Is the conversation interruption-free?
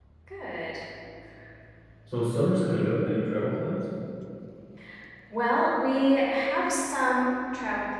Yes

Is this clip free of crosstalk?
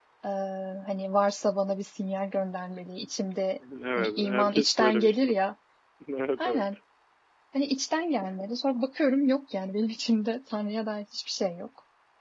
No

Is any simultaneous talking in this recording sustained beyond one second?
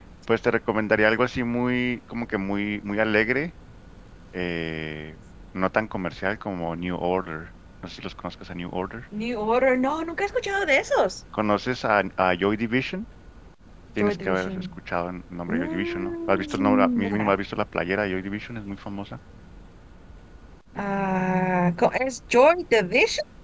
Yes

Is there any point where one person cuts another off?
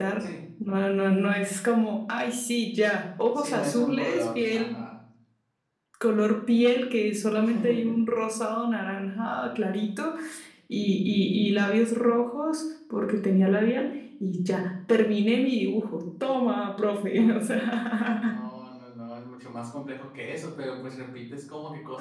Yes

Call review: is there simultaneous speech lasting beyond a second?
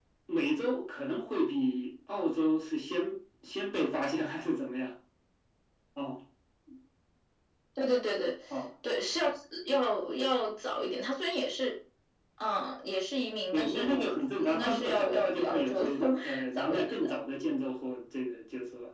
Yes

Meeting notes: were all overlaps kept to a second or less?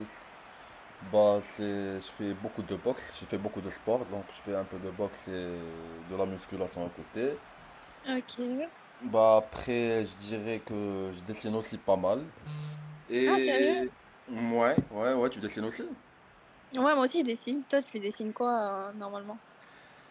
Yes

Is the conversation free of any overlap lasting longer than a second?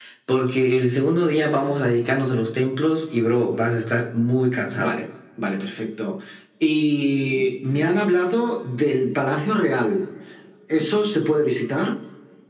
Yes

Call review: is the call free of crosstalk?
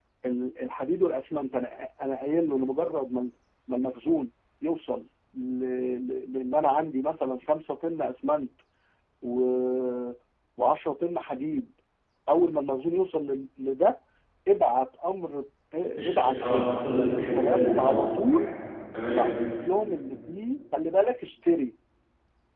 No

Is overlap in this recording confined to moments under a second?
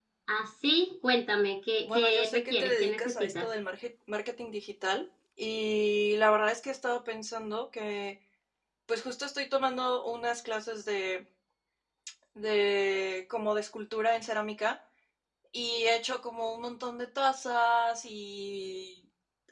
No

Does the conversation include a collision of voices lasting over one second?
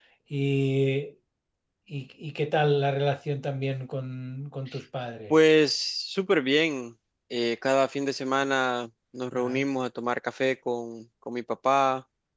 No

